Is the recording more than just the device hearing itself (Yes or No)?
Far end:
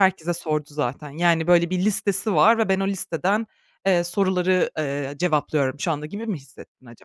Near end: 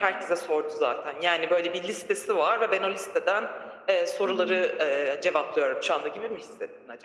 Yes